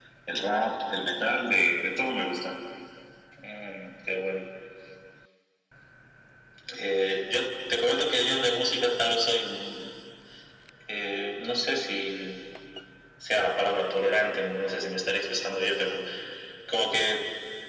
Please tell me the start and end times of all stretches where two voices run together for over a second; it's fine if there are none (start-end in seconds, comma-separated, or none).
none